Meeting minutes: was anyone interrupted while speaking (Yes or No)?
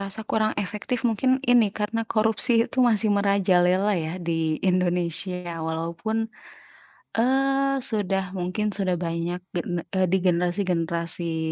No